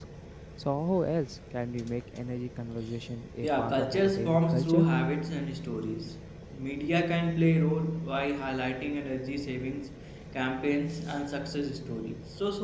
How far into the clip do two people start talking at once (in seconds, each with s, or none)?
3.4 s